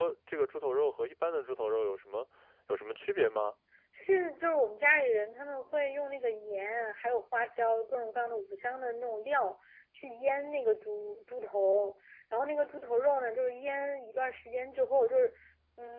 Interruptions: none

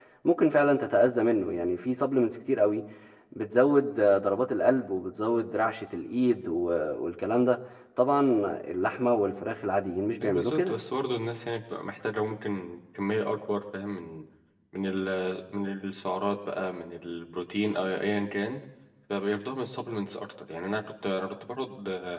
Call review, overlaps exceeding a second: none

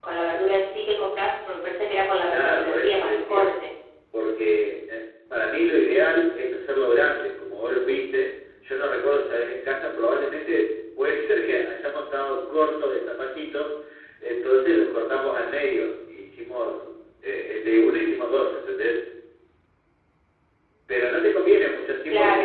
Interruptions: present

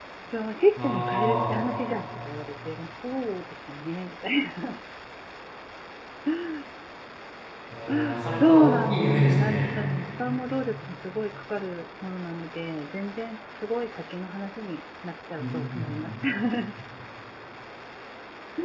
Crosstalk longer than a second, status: present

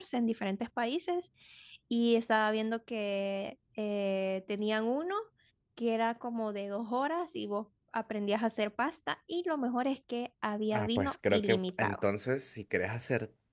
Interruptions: present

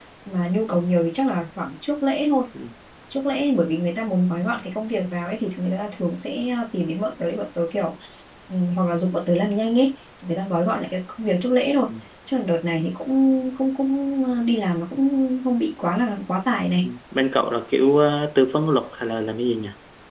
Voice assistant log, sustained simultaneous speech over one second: none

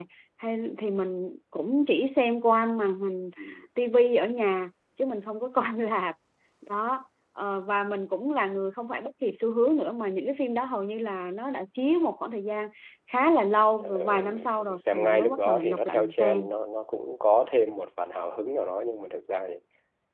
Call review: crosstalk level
present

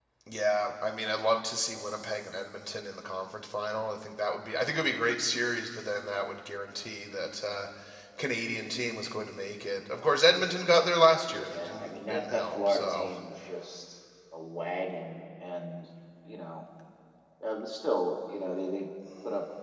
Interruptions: present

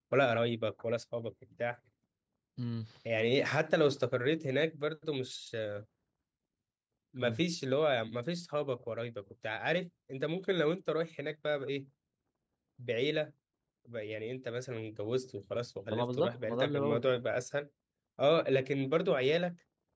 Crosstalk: present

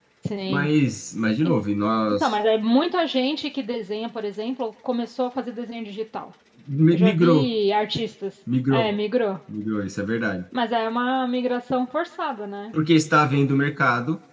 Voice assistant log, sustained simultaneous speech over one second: none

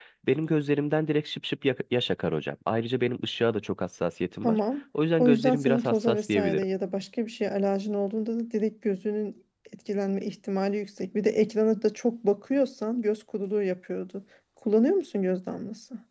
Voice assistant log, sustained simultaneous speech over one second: present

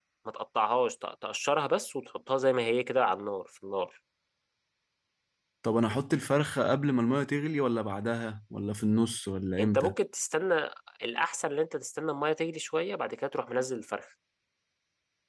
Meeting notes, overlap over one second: none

